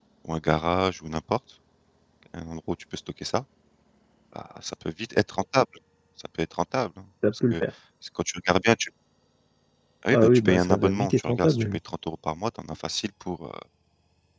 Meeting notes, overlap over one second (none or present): present